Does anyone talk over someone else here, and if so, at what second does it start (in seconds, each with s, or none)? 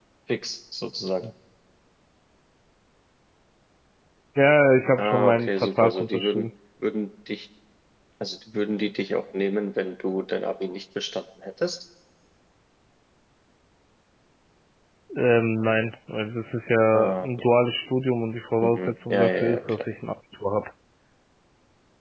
5.0 s